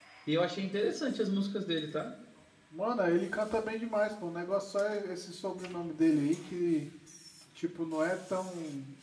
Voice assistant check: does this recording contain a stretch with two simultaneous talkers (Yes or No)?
No